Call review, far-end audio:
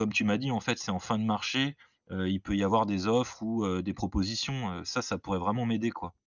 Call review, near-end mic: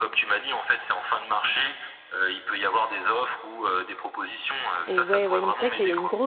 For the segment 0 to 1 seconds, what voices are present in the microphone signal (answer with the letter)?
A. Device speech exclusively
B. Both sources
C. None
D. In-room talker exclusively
A